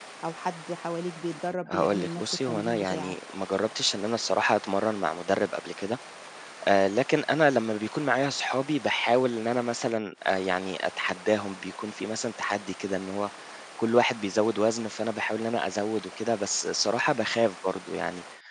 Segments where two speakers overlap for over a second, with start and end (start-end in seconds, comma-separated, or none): 1.7-3.2